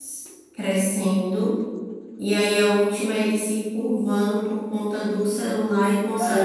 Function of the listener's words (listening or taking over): taking over